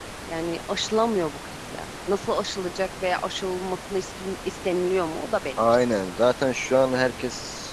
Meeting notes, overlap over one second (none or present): none